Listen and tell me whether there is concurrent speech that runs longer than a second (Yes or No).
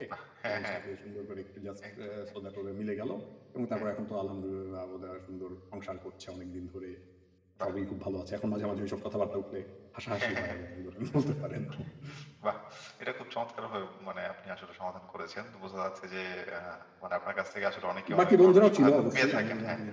Yes